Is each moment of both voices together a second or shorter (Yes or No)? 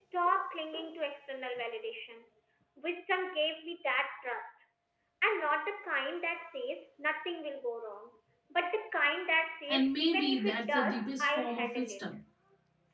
No